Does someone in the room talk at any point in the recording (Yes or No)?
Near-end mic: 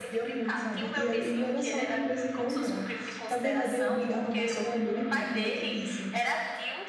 Yes